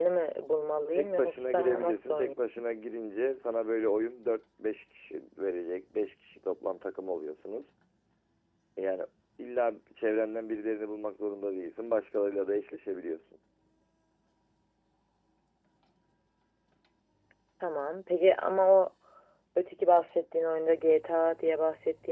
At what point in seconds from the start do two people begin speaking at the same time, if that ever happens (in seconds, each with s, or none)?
0.9 s